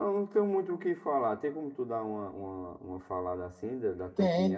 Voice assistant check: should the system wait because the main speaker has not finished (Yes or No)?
No